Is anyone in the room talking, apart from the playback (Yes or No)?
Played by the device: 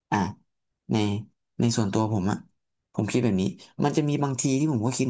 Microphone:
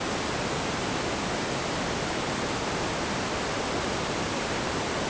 No